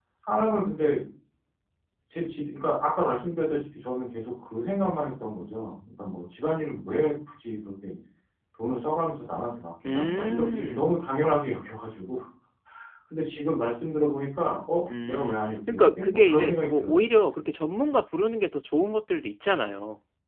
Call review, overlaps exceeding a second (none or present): present